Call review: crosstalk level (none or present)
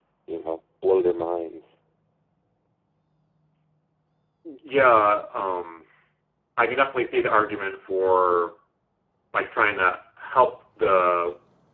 none